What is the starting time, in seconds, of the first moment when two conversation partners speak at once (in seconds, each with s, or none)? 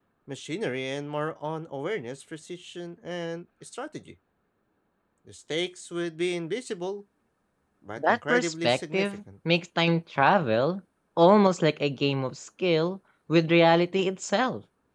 8.0 s